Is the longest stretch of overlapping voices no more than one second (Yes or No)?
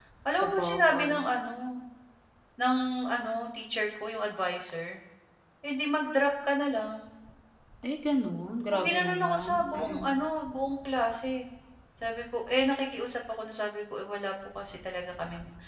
No